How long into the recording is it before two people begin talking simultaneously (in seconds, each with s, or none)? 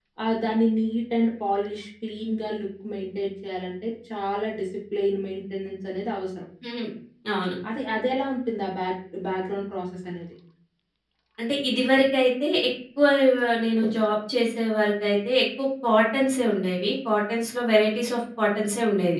none